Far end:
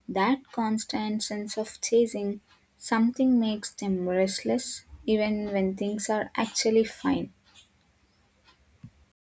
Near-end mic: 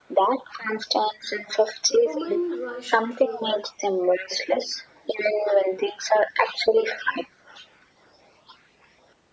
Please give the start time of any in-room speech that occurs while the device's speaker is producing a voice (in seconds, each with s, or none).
1.9 s